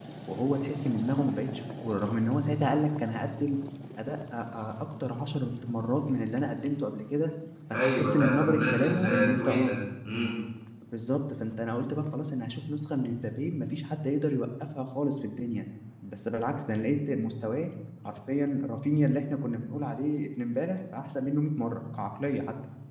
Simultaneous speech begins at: 7.7 s

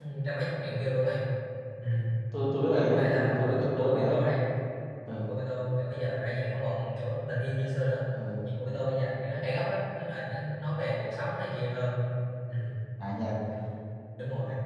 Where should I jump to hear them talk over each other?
2.9 s

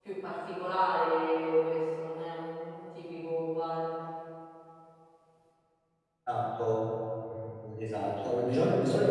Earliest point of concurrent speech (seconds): none

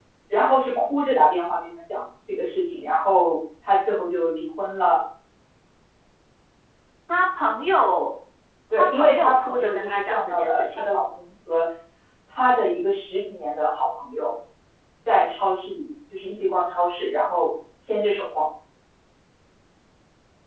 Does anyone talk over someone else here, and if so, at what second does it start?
8.8 s

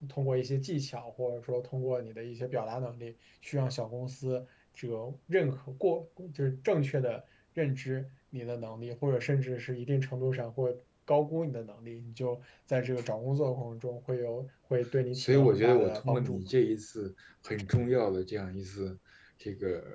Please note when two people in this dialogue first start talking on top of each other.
15.1 s

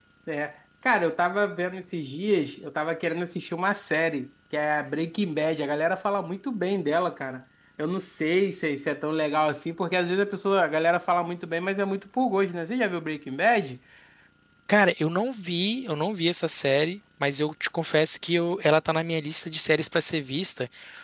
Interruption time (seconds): none

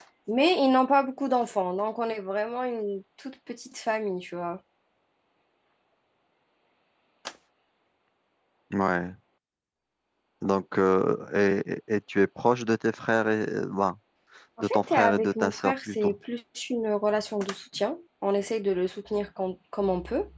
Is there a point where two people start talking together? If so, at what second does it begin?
14.6 s

